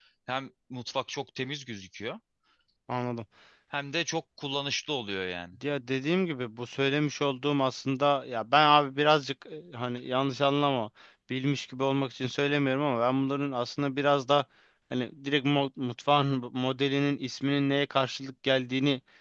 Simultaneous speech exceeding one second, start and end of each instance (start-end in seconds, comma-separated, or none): none